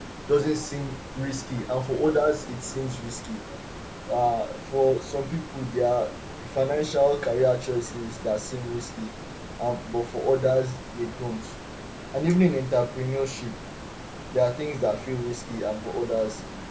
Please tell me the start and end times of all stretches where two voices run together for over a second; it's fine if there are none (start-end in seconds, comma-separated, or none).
none